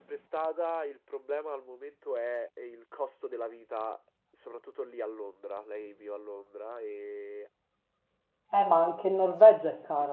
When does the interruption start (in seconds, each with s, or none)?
none